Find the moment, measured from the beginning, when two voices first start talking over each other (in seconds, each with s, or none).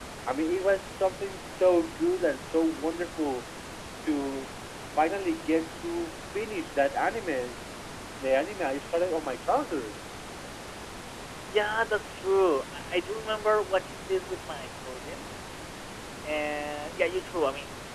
none